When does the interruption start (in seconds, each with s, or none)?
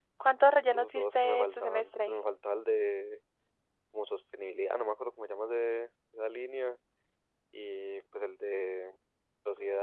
0.7 s